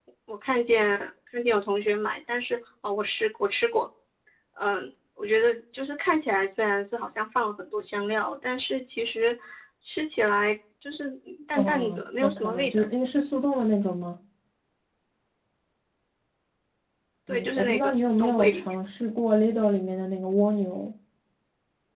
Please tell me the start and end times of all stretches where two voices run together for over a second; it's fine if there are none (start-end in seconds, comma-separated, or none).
11.5-12.8, 17.3-18.8